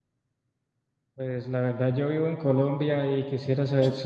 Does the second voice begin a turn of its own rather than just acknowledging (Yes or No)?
No